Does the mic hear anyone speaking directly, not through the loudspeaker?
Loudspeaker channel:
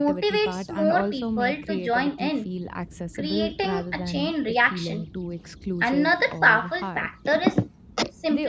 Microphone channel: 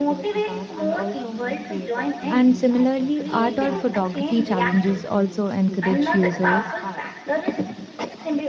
Yes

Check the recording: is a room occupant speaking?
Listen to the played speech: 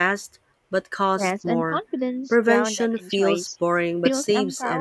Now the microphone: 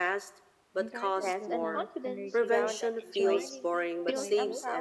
Yes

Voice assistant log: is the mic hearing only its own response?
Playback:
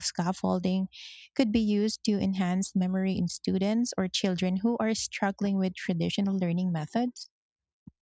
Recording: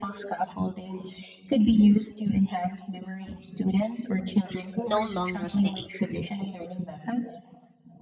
No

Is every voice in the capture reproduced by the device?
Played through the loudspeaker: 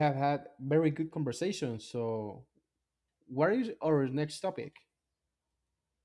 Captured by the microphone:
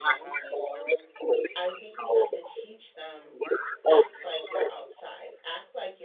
No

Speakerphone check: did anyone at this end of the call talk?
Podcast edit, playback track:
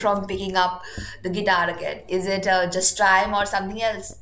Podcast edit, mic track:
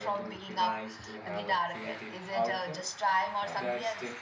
Yes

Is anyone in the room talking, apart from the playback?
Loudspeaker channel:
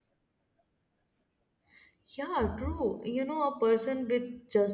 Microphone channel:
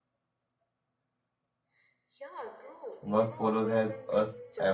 Yes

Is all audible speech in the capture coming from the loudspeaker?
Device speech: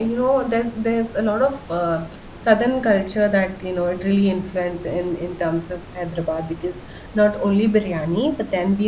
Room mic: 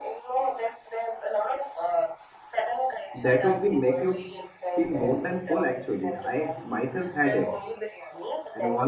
No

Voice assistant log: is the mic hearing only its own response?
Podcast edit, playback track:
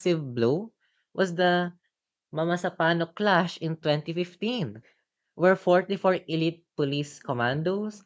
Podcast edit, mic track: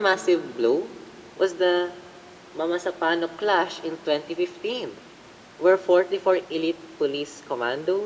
Yes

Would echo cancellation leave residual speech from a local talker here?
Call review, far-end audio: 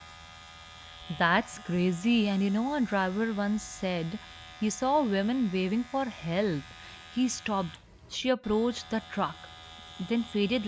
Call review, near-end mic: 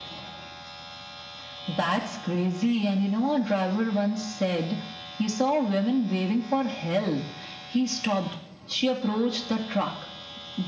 No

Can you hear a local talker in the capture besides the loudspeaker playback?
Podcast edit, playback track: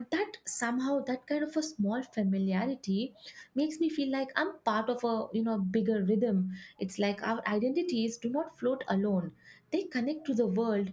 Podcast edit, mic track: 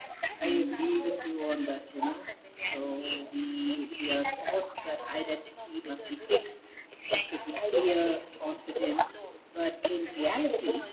Yes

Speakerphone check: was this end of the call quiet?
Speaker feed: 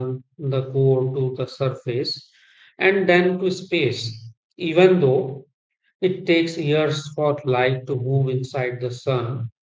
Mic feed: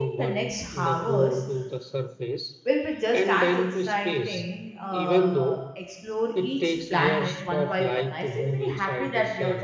No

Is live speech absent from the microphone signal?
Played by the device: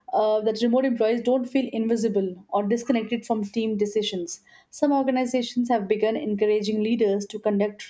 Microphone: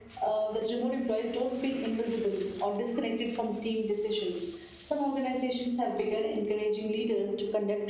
Yes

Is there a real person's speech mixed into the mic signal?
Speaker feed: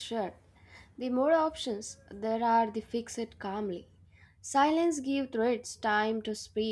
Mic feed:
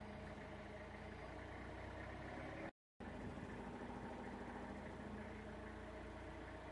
No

